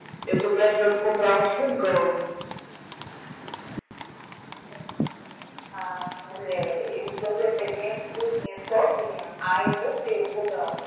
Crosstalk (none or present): none